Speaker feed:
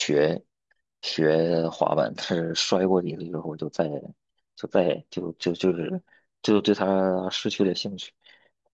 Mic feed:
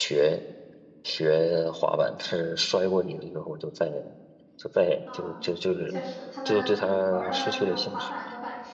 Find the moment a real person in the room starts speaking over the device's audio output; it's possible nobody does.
5.0 s

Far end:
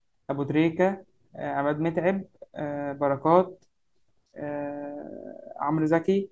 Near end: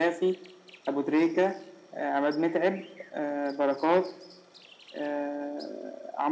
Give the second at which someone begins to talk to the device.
none

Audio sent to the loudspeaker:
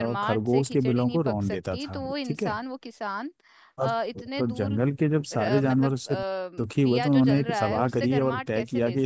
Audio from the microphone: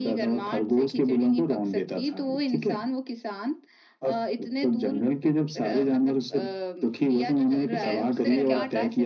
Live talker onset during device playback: 7.8 s

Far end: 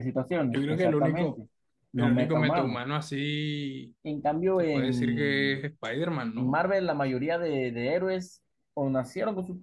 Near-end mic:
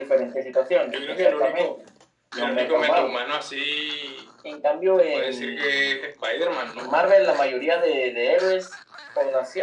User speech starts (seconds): none

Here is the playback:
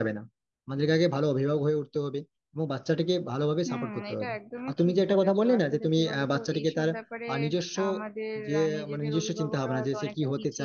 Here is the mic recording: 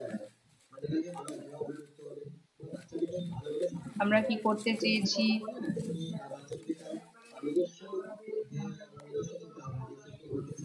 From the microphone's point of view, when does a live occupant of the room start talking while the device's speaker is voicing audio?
4.0 s

